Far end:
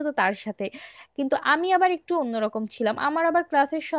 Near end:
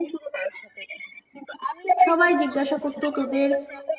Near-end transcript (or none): সবাই জিজ্ঞাসা করতো তোদের